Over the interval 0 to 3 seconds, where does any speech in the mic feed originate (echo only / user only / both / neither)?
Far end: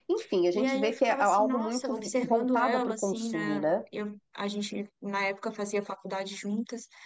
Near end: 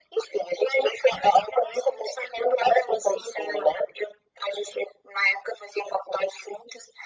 echo only